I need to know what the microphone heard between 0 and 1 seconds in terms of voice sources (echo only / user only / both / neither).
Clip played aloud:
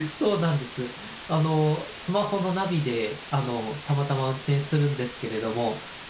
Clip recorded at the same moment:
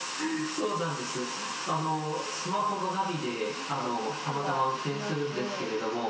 echo only